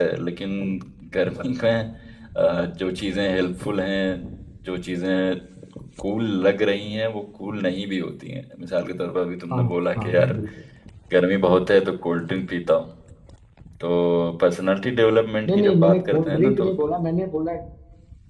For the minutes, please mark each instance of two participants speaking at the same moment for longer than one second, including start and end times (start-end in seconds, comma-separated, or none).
15.5-16.7